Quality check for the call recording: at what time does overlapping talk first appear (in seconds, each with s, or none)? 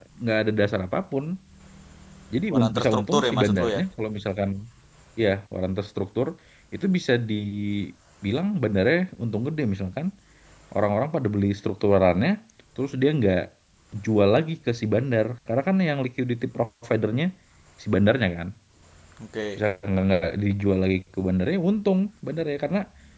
2.5 s